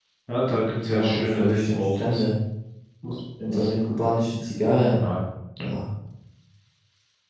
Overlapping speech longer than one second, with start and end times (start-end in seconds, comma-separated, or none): 0.8-2.2